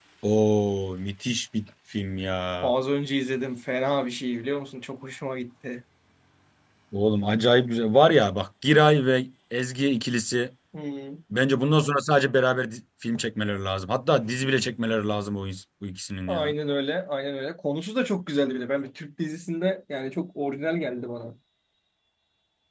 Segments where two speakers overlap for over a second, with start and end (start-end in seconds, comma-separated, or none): none